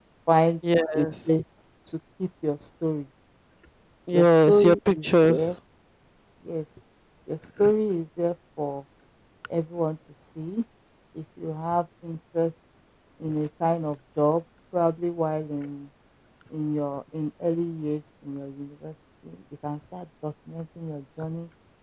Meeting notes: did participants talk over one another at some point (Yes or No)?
Yes